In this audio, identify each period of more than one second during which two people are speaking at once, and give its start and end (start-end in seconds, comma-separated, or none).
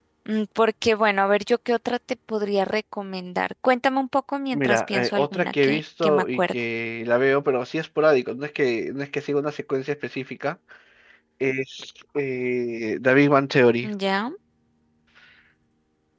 4.5-6.5